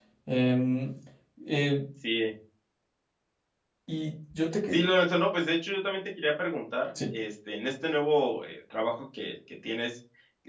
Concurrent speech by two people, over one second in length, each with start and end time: none

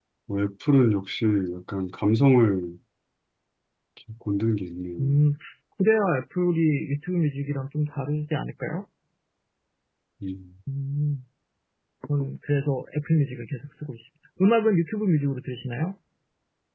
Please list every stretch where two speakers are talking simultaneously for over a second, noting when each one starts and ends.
none

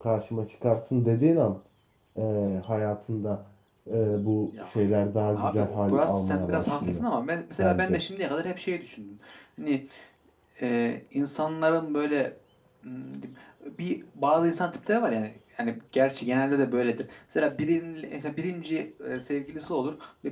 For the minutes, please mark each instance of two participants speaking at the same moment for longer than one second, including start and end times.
5.3-7.0

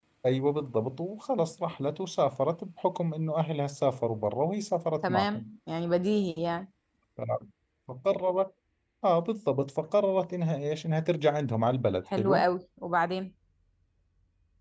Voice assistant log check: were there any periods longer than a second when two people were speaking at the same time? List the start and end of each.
none

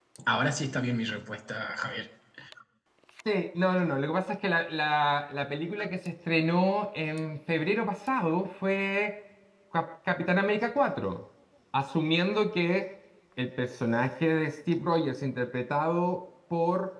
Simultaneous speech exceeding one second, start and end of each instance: none

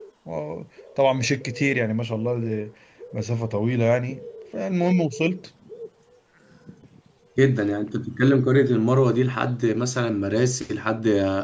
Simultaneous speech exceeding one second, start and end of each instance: none

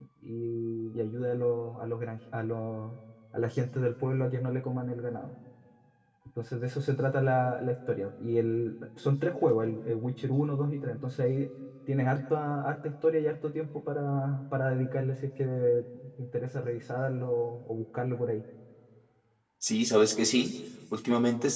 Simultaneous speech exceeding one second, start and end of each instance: none

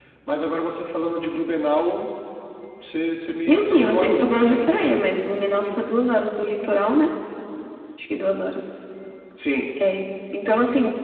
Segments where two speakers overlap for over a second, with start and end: 3.5-4.7

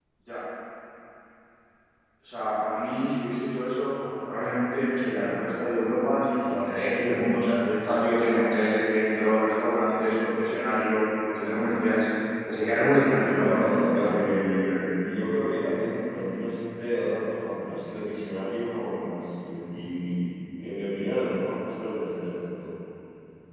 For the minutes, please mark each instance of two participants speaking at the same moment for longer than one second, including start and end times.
13.2-14.8

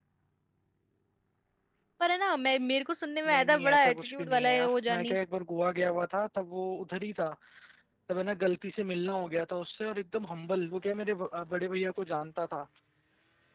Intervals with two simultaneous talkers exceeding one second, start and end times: 3.3-5.2

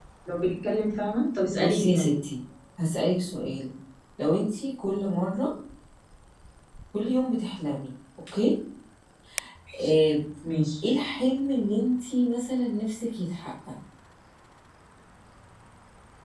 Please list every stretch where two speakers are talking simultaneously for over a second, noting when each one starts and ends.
none

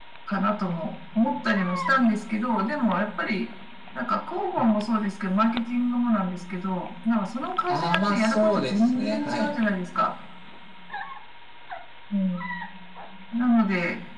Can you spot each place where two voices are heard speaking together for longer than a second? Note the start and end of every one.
7.7-9.5

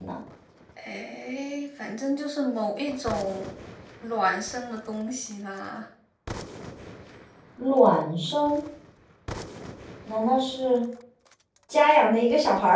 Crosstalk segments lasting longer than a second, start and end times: none

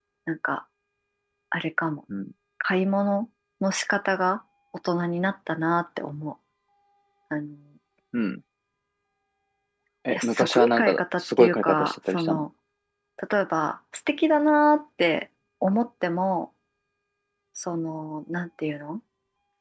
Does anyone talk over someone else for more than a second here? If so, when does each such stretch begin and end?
10.1-12.4

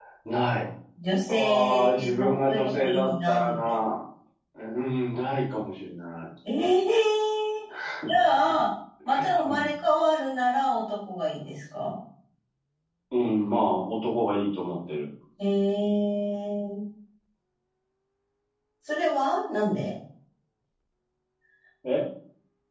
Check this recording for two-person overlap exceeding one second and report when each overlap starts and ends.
1.3-3.8

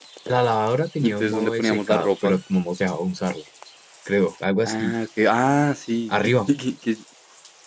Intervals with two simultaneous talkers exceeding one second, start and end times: 1.0-2.4

